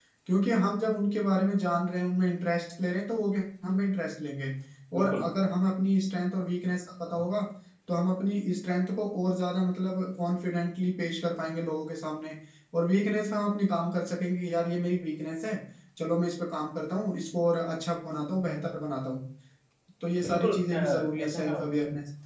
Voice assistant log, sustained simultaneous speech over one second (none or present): present